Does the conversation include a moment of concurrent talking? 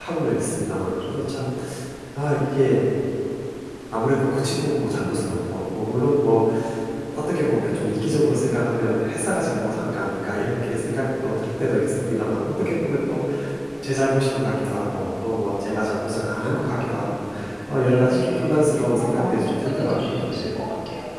Yes, from 18.1 s

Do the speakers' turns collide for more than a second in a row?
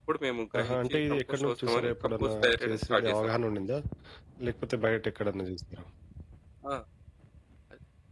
Yes, from 0.6 s

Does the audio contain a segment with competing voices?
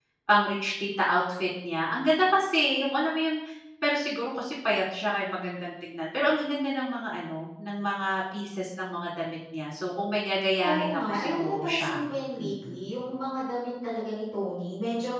Yes, from 10.6 s

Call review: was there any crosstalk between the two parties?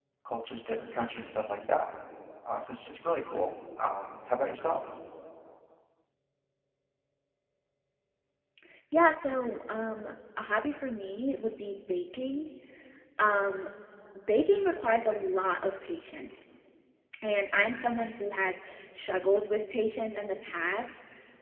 No

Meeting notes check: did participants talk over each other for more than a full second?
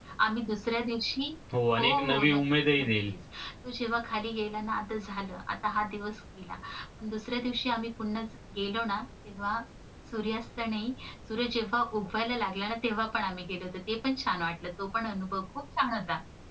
Yes, from 1.8 s

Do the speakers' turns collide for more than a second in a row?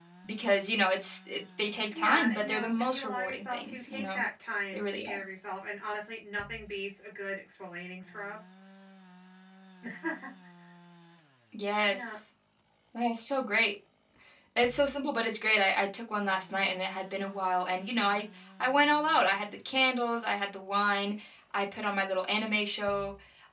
Yes, from 2.0 s

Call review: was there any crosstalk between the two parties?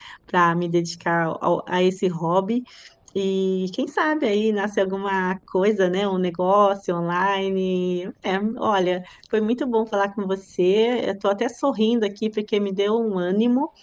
No

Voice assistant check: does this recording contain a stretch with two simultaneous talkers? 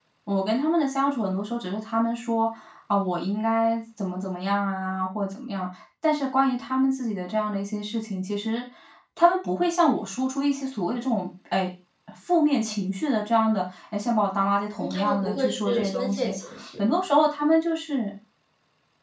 Yes, from 14.8 s

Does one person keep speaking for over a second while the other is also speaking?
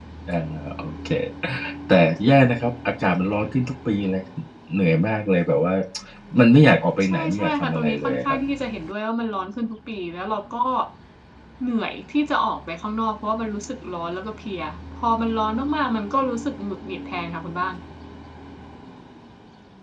Yes, from 7.0 s

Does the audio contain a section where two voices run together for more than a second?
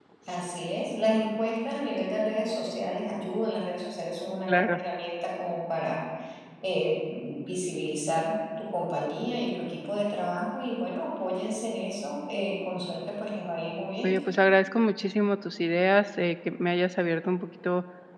No

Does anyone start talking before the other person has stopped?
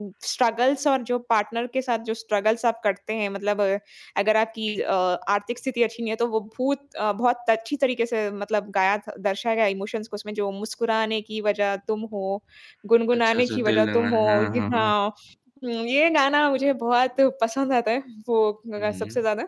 Yes, from 13.1 s

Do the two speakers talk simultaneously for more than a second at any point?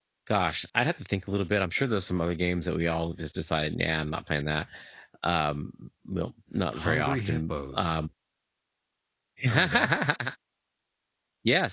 Yes, from 6.7 s

